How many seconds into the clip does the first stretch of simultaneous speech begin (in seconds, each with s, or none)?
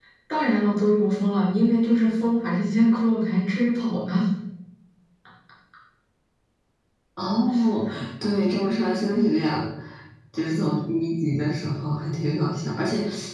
none